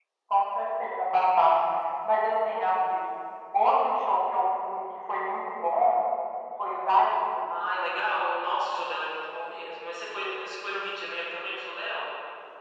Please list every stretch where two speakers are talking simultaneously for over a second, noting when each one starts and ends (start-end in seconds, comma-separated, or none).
none